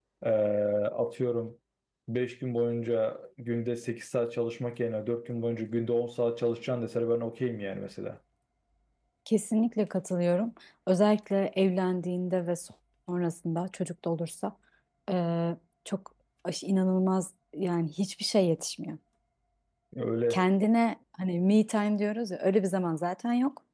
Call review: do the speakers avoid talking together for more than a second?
Yes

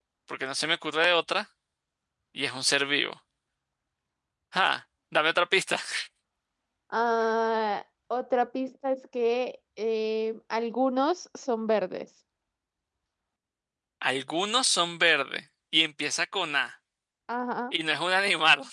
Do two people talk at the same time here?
No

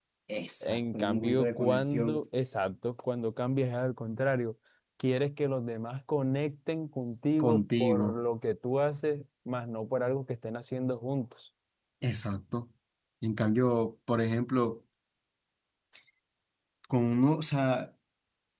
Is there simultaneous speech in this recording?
Yes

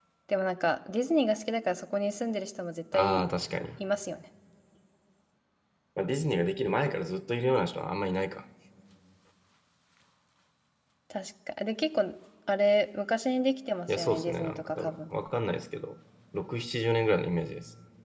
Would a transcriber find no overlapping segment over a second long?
No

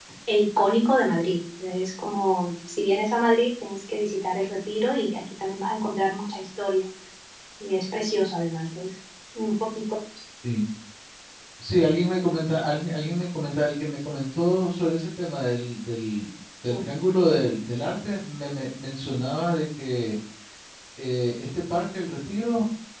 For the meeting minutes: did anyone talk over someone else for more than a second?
No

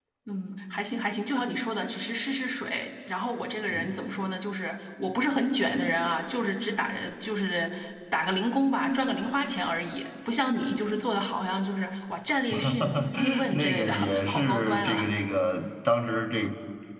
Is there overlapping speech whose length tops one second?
Yes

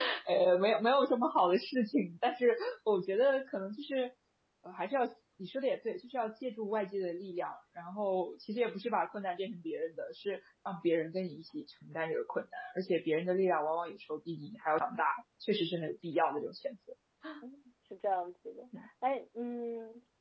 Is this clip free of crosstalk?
Yes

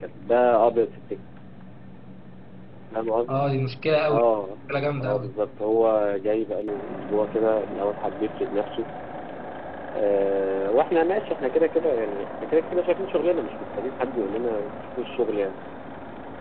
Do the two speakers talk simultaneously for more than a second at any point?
No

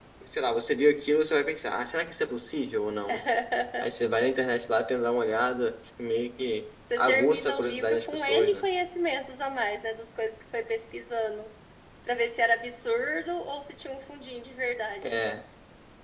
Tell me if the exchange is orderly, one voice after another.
No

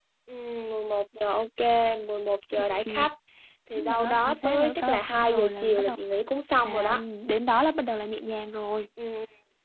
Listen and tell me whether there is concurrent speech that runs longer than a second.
Yes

